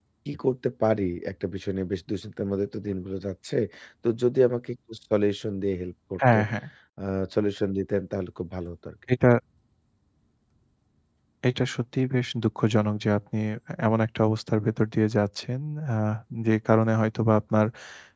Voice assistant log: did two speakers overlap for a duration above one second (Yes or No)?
No